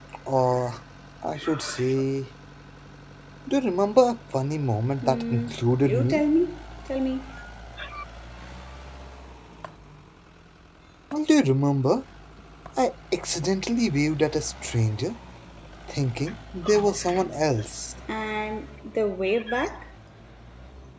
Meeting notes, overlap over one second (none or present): present